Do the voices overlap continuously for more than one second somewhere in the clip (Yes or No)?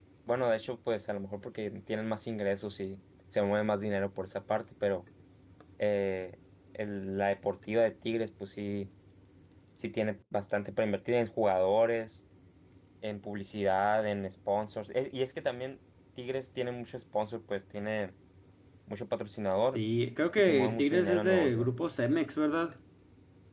Yes